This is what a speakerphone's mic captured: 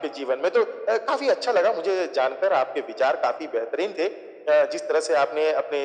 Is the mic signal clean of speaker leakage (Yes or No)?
No